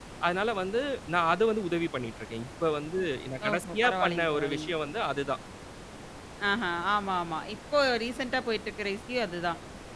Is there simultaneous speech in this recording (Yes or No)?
Yes